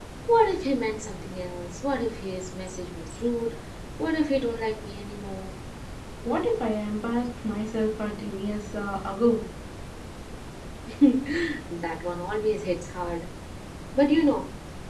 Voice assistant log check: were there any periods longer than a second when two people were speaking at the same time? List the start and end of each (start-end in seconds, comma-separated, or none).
none